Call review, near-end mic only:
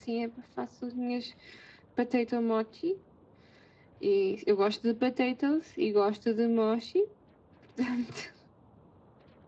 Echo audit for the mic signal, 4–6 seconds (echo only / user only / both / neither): echo only